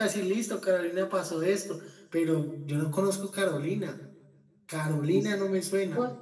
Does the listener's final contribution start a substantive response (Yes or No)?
Yes